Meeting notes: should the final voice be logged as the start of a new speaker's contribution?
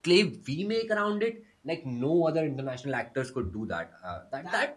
No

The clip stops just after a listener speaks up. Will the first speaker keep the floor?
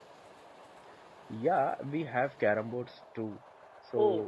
Yes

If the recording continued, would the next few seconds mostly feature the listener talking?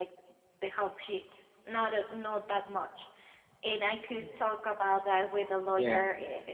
No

